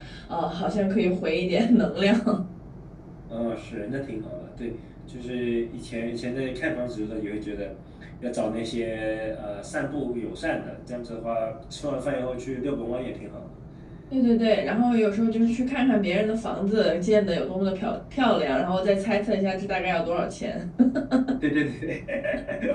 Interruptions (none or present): none